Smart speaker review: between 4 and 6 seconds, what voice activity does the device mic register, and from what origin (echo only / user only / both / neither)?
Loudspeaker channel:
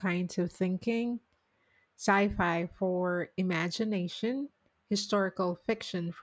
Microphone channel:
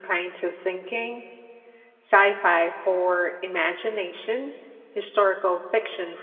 echo only